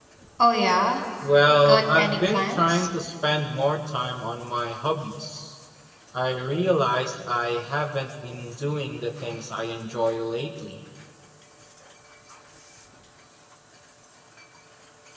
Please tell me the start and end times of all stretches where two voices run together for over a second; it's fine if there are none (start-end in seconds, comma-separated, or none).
1.6-2.9